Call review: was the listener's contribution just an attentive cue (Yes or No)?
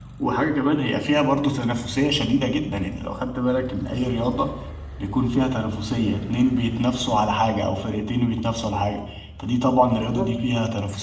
No